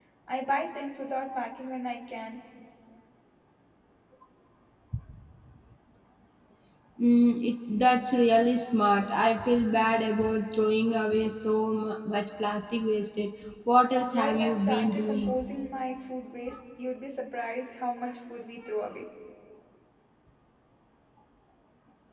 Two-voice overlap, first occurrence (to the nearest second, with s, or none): 14 s